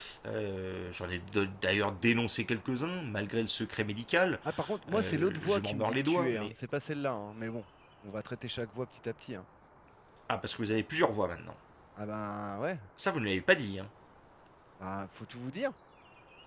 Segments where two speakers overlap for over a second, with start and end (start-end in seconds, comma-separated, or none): 4.9-6.5